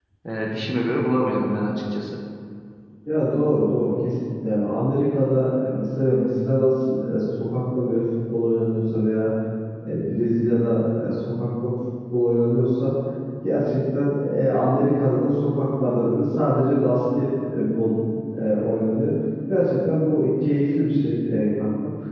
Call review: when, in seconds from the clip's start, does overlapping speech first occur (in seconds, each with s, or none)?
none